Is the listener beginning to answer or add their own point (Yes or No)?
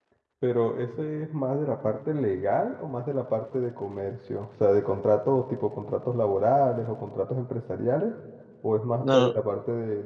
No